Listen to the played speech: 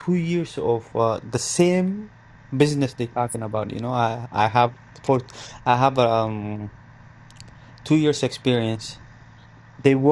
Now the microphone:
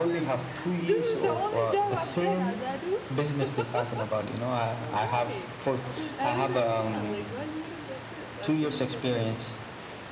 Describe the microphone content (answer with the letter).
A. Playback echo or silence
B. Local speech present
B